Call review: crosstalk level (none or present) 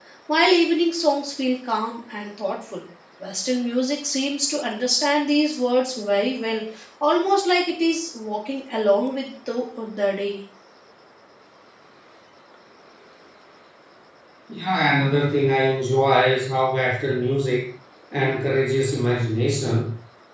none